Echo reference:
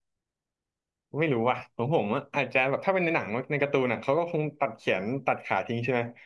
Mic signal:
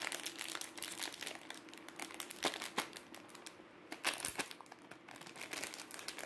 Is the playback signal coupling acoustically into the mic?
No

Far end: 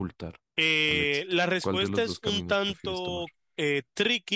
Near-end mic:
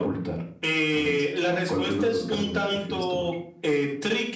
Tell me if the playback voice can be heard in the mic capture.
Yes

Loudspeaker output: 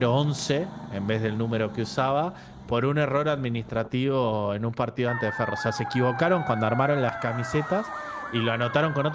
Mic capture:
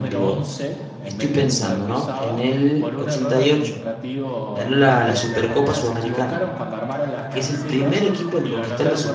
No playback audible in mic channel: No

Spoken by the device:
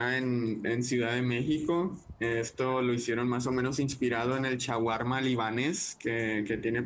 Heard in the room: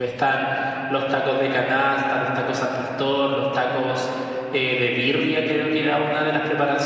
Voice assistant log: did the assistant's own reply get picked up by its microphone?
No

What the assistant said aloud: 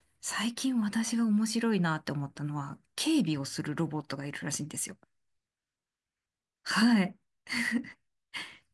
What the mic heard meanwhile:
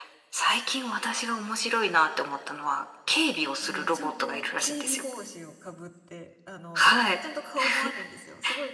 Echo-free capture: No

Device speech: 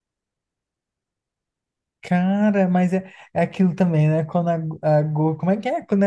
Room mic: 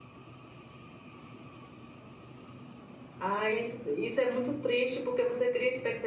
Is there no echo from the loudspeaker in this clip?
Yes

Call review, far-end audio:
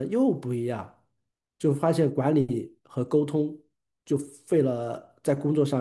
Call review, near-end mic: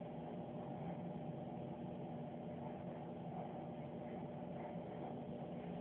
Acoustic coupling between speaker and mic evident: No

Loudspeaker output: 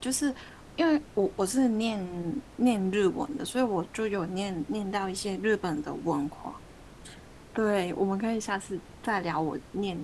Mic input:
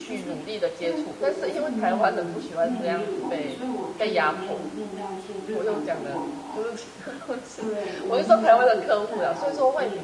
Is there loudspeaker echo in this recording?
Yes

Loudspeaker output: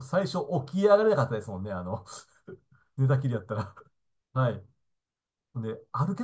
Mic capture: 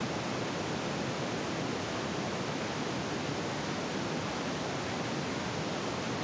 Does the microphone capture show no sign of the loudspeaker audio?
Yes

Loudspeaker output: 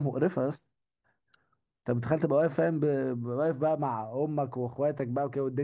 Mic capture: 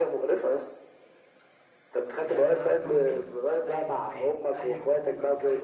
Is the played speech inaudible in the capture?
No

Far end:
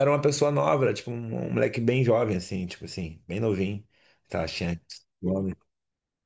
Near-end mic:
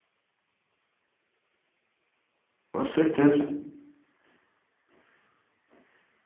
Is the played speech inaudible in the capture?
Yes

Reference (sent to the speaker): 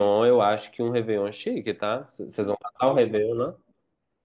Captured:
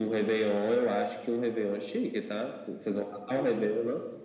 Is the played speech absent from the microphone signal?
No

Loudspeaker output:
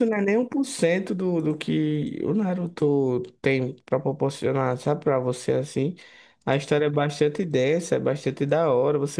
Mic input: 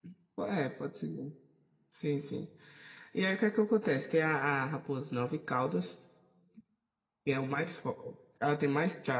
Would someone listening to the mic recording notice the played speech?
No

